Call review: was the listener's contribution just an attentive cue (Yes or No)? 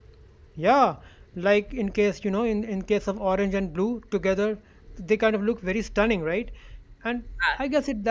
Yes